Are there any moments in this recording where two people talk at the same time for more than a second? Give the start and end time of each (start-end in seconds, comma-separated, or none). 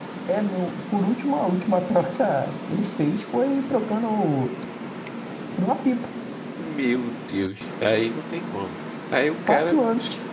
none